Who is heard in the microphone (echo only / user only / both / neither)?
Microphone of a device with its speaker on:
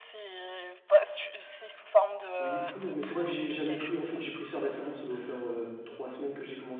both